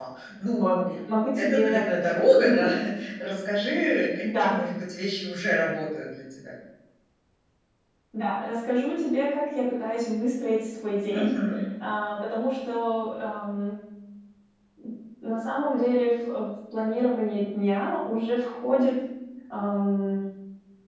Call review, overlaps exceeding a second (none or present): none